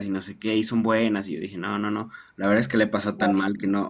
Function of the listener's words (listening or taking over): listening